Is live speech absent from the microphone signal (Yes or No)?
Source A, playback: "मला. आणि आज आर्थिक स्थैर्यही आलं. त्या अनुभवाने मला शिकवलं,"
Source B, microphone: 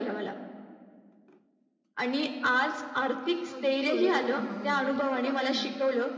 No